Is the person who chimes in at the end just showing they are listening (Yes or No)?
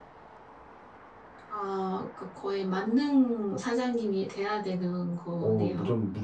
No